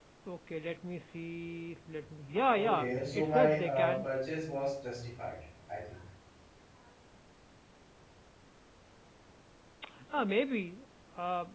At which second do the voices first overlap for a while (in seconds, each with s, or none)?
2.5 s